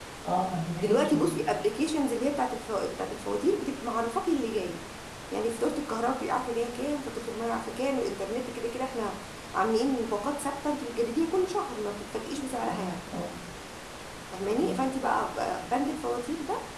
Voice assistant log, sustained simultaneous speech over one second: none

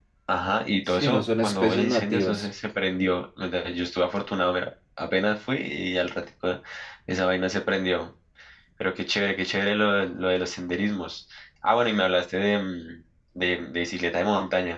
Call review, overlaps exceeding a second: present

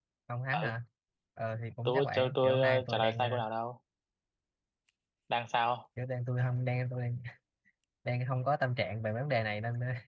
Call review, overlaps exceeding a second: present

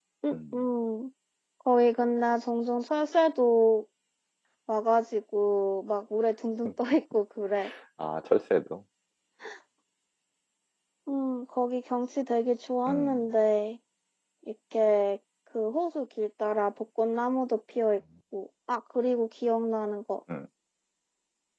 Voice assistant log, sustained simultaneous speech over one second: none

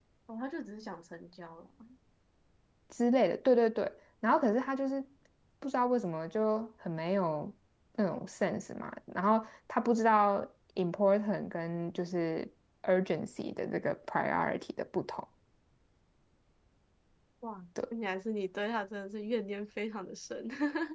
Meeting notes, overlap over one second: none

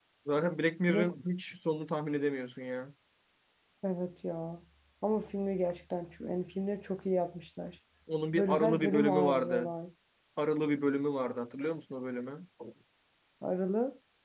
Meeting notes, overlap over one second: present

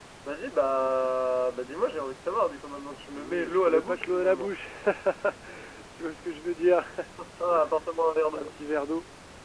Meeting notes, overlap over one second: present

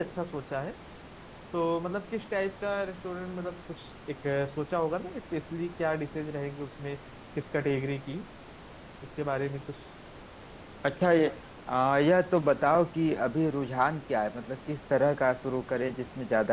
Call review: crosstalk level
none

